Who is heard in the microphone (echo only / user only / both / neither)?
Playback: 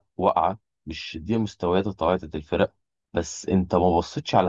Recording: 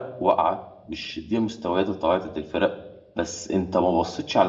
echo only